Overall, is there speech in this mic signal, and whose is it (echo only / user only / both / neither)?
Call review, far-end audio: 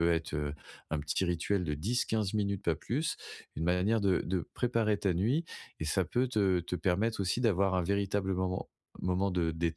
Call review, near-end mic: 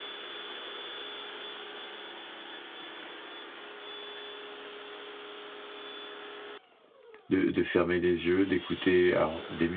user only